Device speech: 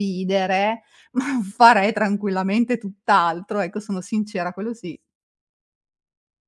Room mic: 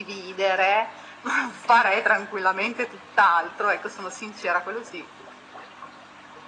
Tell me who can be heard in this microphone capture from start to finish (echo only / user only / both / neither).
echo only